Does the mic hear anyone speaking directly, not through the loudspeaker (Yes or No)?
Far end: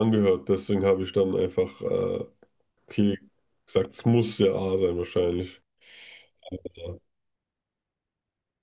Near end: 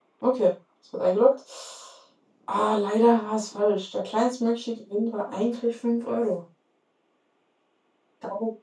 Yes